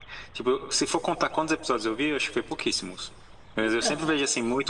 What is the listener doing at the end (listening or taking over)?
listening